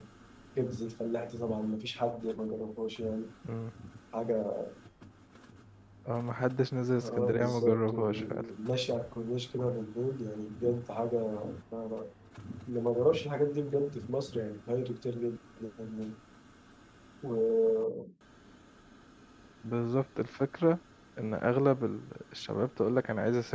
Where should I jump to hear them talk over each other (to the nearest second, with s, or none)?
7 s